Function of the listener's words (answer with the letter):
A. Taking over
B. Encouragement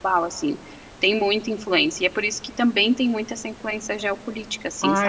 A